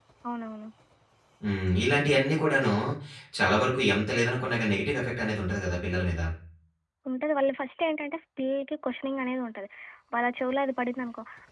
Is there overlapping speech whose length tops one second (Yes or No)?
No